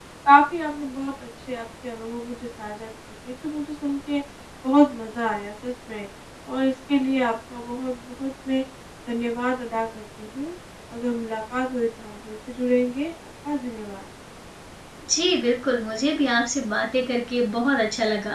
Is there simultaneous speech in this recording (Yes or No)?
No